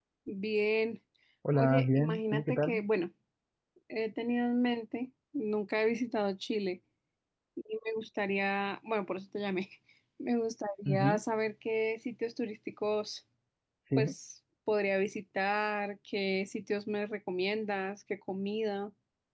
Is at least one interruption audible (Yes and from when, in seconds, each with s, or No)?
Yes, from 1.5 s